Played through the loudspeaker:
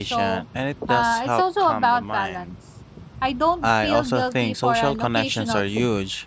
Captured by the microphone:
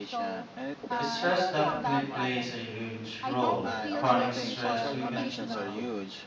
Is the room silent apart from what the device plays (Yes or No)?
No